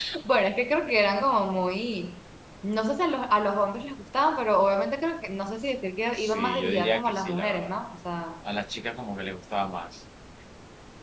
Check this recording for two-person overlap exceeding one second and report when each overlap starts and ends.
6.2-7.7

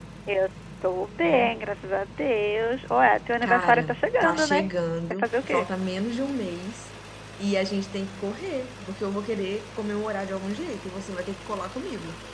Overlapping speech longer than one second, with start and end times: 3.4-4.7

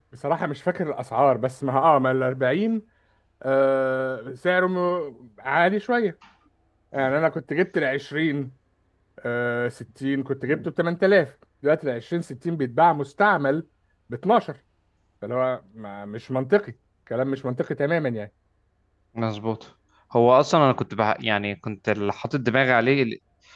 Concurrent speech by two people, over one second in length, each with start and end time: none

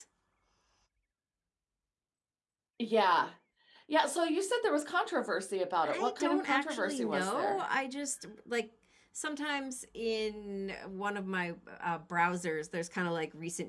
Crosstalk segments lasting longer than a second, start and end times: 5.8-7.6

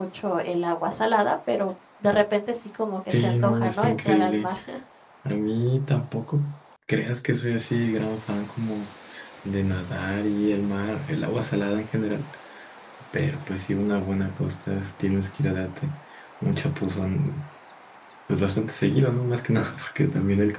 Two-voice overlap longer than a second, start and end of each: 3.1-4.5

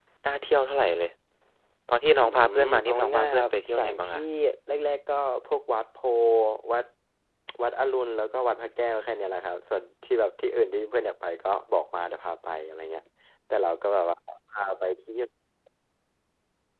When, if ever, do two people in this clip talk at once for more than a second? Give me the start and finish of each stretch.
2.2-4.2

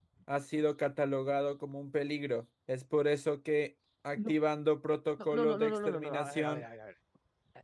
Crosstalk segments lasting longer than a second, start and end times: 5.2-6.6

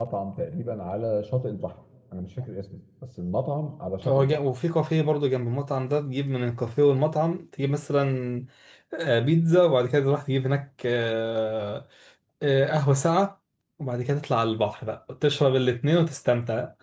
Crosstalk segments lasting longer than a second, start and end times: none

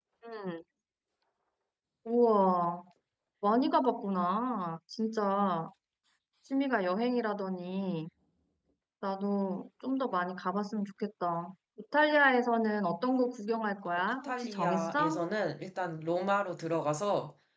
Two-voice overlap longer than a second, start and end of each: 13.9-15.2

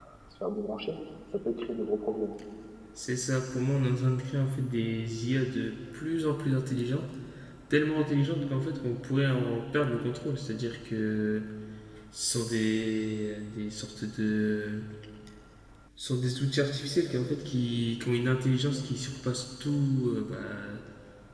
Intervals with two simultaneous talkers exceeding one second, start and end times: none

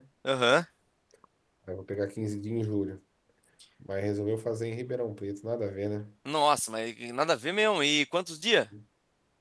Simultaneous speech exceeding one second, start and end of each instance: none

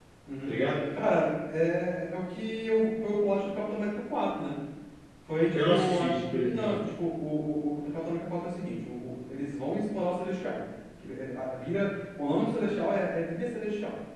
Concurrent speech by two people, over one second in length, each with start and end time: 5.5-6.8

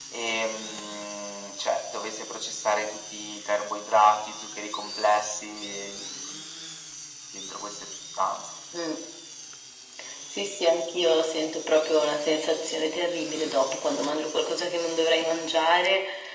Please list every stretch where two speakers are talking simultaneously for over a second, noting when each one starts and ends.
none

